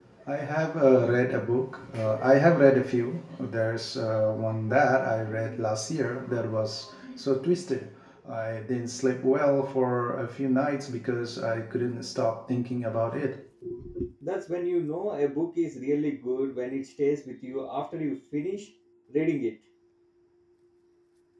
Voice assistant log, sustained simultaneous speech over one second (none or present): none